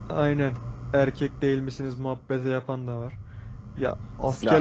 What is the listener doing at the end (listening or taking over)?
taking over